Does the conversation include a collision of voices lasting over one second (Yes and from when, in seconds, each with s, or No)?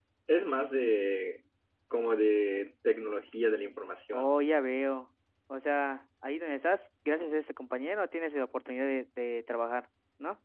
No